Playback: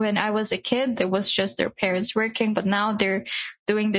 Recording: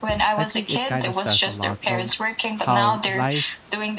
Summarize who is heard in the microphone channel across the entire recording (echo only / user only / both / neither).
both